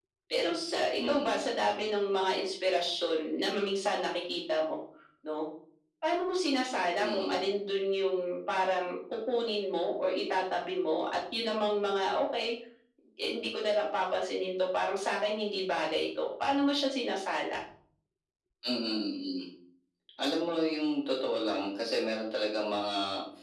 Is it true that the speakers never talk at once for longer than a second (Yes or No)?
Yes